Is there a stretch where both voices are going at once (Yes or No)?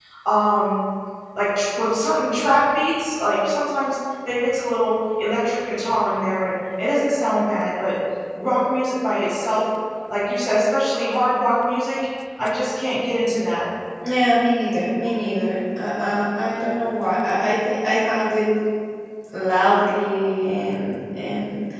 No